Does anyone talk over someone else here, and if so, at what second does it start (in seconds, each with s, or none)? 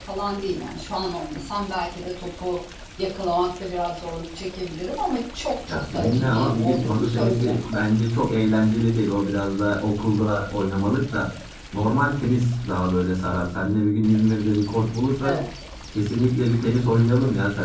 5.6 s